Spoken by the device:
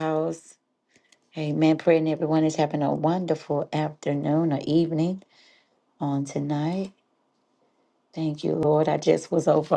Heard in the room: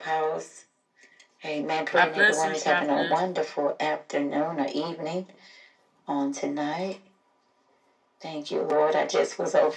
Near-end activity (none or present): present